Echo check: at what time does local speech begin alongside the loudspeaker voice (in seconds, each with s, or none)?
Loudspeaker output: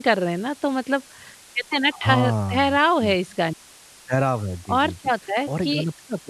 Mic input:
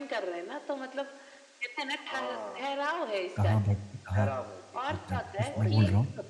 3.4 s